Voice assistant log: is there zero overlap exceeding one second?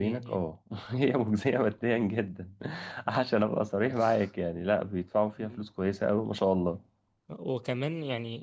Yes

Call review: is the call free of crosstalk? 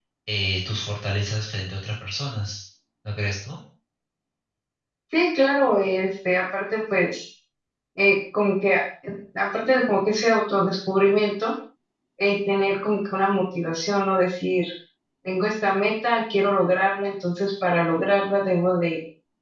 Yes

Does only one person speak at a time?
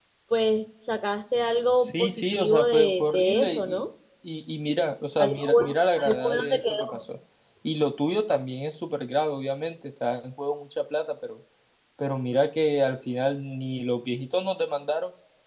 No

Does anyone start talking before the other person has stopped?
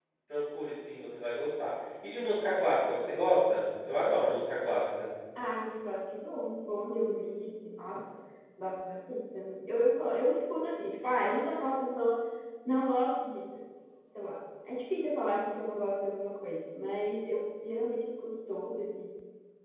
No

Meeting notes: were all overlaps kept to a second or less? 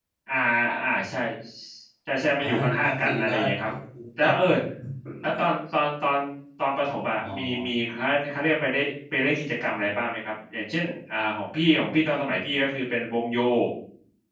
No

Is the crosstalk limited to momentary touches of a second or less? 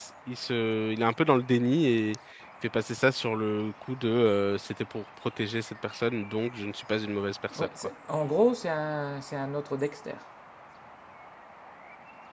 Yes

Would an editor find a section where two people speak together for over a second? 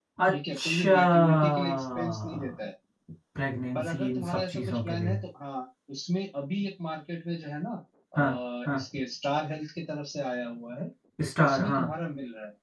Yes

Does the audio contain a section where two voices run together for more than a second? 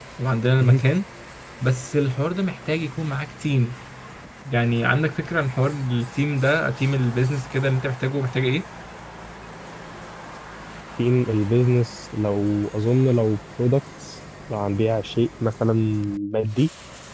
No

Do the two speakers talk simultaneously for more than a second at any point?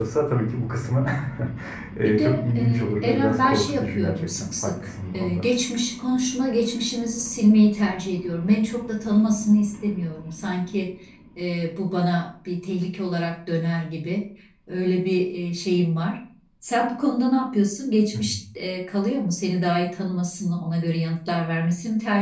Yes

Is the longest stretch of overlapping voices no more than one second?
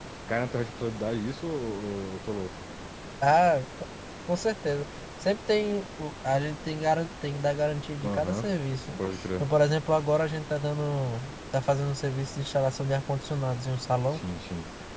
Yes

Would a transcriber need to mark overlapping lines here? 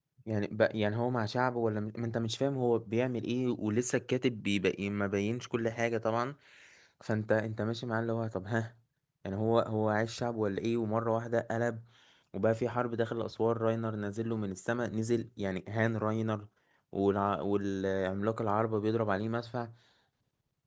No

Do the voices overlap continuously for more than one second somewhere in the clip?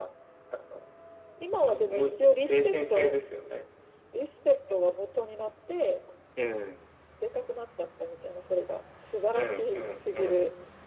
Yes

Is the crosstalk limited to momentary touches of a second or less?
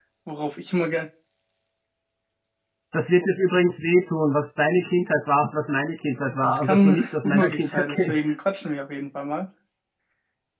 No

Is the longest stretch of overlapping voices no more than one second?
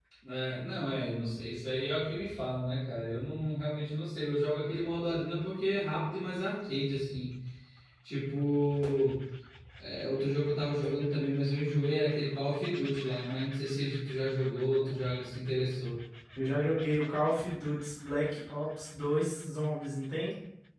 Yes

